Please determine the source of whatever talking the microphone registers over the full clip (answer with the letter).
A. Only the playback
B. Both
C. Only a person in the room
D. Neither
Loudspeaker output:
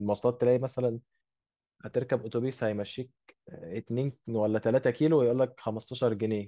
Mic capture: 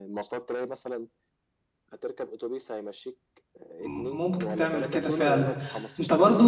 B